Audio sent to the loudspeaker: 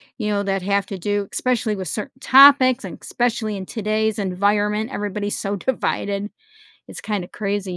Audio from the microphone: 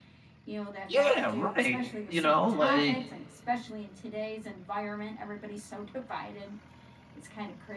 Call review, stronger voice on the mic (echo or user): user